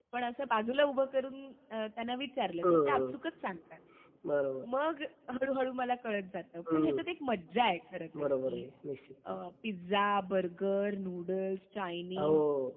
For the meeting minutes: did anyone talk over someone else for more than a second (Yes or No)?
No